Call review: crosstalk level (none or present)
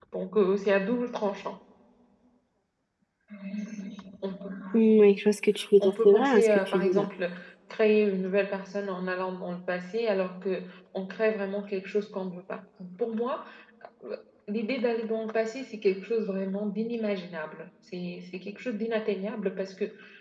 present